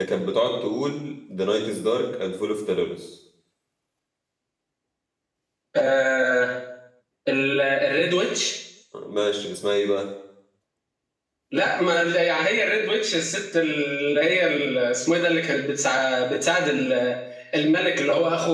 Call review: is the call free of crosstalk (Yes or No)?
Yes